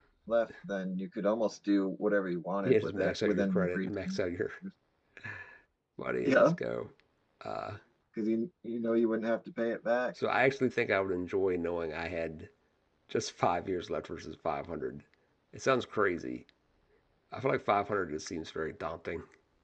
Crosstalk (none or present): present